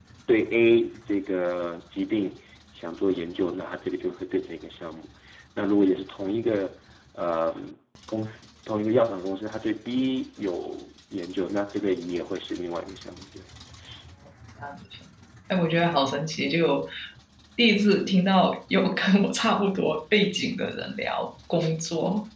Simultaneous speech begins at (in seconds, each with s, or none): none